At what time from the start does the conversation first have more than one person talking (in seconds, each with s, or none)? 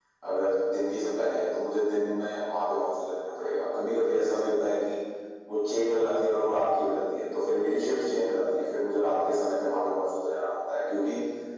none